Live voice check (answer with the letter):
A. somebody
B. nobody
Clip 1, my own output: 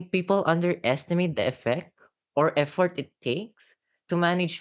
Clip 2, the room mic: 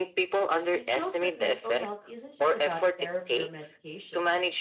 A